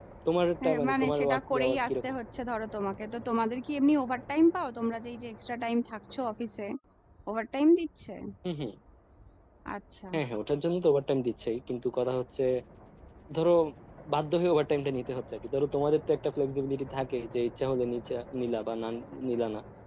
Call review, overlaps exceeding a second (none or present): present